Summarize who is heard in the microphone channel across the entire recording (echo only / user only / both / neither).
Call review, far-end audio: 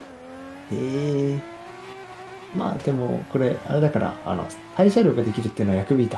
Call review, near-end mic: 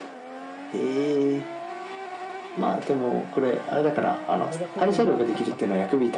both